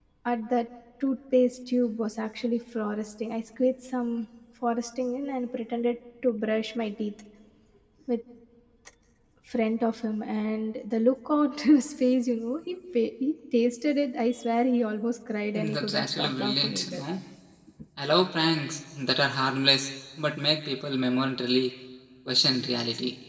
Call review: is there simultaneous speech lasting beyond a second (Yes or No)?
Yes